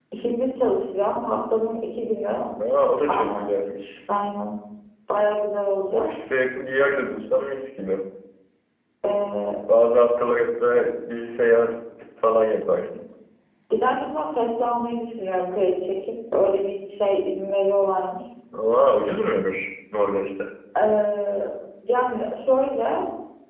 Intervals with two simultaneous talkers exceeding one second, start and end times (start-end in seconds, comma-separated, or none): none